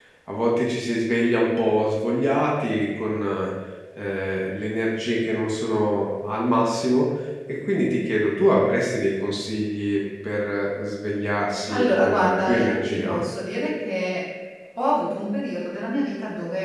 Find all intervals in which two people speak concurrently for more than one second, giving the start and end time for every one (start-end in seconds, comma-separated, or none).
11.7-13.2